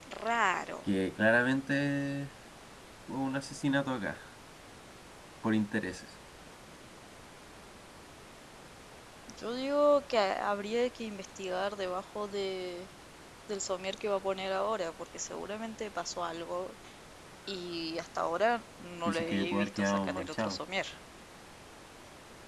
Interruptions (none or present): present